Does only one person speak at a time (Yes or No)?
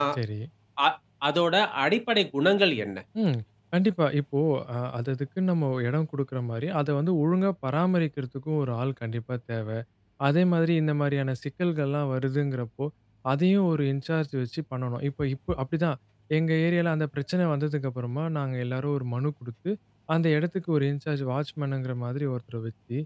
Yes